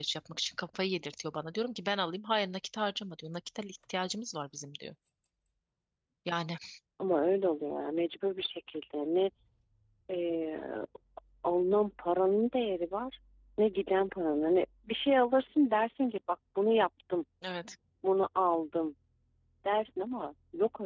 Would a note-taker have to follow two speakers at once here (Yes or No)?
No